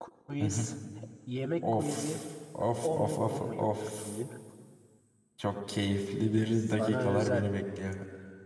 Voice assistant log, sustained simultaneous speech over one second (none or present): present